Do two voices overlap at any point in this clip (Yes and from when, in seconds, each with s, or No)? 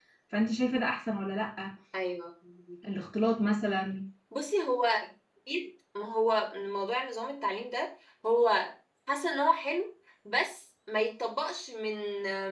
No